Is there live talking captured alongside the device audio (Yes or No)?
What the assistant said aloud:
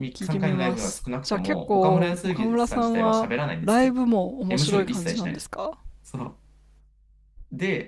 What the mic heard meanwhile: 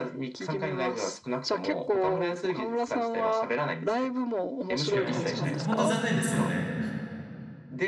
Yes